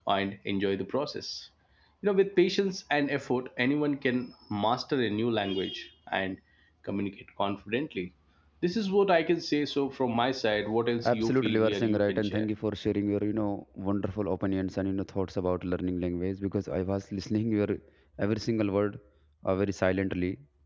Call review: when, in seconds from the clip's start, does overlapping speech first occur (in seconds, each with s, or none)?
11.0 s